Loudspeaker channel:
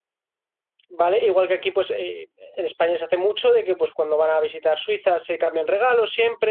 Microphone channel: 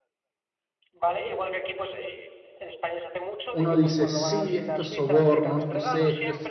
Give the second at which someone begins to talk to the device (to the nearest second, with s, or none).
4 s